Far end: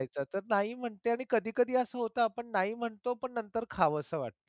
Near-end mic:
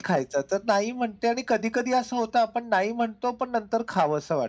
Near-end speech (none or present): none